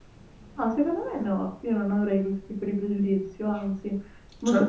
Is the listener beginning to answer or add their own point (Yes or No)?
Yes